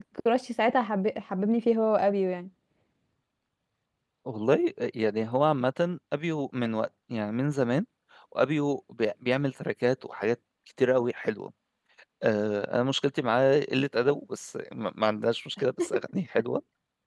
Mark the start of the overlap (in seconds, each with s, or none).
none